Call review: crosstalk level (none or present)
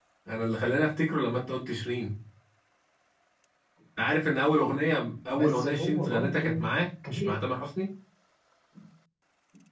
present